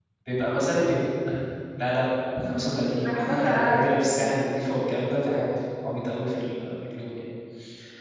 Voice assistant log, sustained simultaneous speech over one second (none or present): present